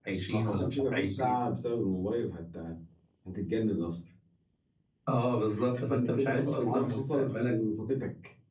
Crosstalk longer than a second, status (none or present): present